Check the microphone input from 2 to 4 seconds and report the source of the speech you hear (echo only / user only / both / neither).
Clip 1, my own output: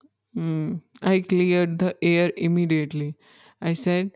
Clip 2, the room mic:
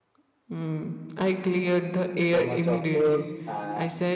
both